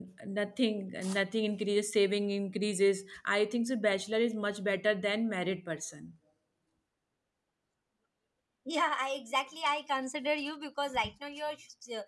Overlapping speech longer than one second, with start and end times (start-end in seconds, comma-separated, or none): none